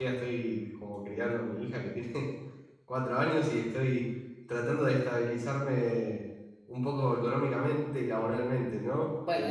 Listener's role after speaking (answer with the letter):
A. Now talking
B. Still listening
A